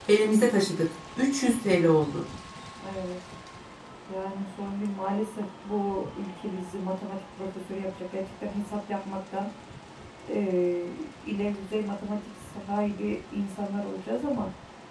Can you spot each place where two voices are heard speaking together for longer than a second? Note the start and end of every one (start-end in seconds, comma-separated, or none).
none